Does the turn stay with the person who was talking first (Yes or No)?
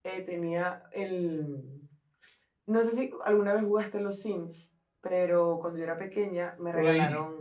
Yes